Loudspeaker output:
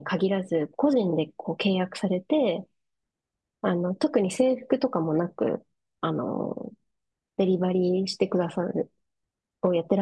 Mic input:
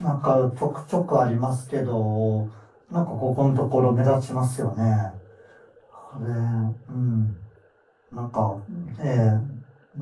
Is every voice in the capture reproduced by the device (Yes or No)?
No